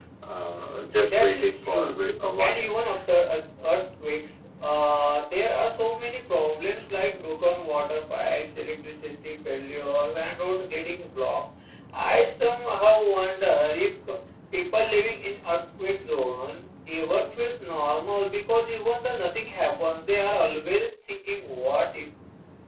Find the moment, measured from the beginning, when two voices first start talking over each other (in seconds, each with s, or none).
1.1 s